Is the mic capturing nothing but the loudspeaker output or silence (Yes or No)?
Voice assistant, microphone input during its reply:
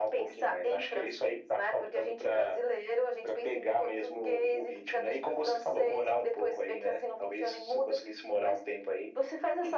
Yes